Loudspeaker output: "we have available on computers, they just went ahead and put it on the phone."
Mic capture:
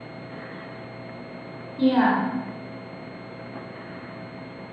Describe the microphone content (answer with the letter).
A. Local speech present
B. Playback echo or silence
A